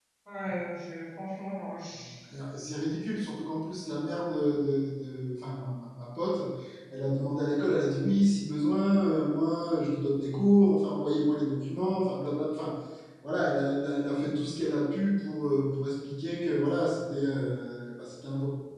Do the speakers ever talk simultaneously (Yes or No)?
No